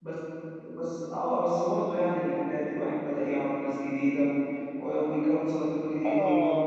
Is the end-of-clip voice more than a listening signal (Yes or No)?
Yes